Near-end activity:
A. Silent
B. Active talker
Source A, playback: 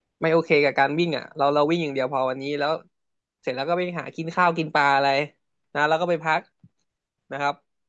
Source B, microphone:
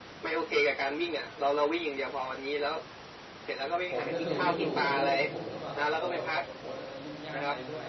B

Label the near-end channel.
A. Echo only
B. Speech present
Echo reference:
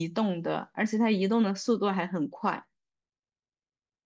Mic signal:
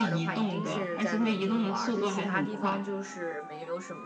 B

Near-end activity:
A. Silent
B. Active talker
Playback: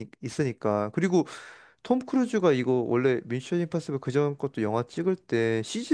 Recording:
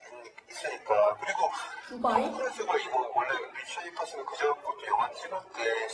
B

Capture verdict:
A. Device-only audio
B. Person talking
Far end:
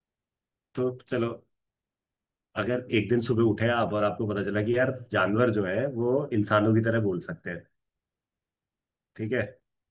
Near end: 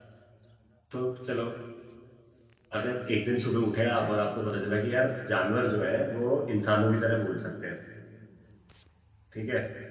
A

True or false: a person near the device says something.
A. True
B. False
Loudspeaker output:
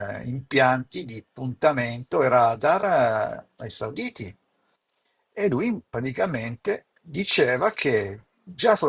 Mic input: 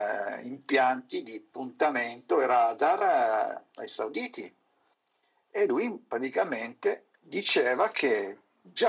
B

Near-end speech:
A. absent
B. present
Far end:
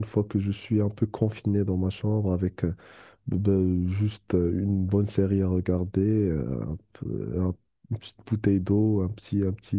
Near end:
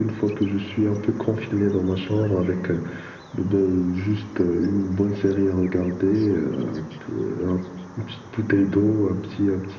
A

